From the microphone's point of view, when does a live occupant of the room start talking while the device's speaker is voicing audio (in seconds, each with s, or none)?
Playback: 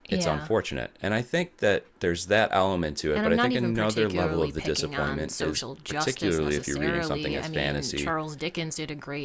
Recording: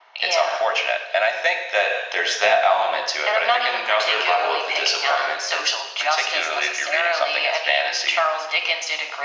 none